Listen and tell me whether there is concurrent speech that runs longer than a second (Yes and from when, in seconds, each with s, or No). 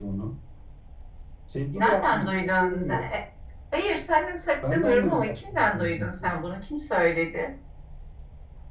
Yes, from 1.8 s